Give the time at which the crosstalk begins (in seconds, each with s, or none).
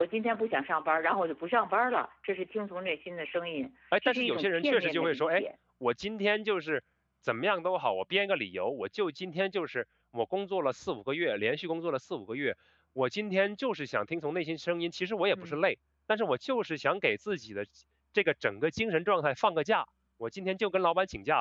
4.1 s